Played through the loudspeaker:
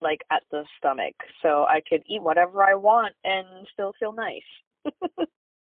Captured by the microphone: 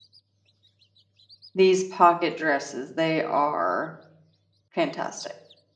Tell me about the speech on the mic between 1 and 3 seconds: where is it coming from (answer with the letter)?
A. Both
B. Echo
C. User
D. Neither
C